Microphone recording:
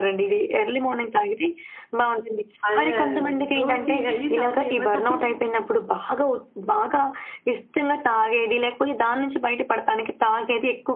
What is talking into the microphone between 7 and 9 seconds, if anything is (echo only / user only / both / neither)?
echo only